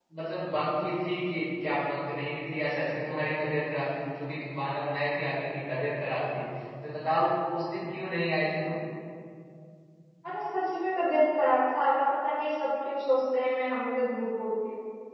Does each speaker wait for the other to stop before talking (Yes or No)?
Yes